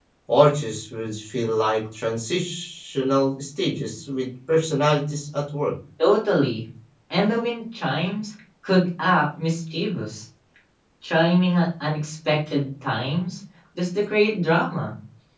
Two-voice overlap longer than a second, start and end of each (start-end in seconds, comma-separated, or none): none